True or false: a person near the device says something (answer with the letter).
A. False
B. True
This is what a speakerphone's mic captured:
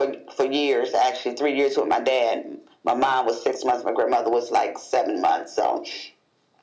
A